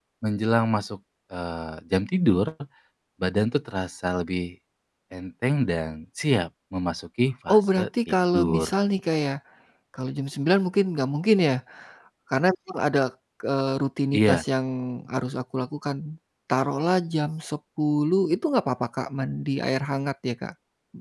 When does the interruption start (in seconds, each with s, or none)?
7.5 s